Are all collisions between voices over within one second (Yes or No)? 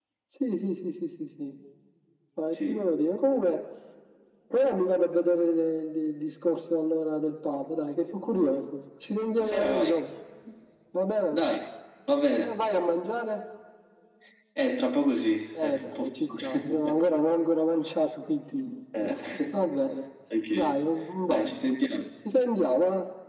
No